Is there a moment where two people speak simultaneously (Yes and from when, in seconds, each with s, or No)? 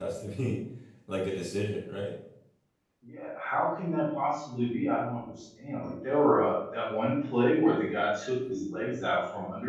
No